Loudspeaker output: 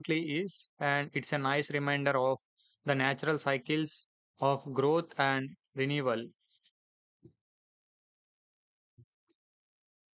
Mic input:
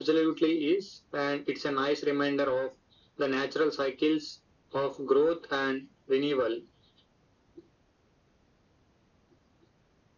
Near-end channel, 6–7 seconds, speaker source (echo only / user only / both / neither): echo only